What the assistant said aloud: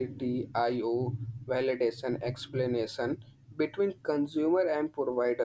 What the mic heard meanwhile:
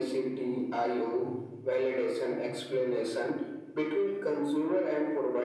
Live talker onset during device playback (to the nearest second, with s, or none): none